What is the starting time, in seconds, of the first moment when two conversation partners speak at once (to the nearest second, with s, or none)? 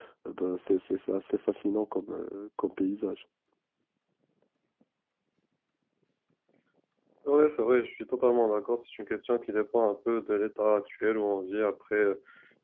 none